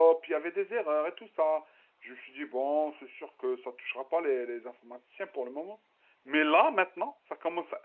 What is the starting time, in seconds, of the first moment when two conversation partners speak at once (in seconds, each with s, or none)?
none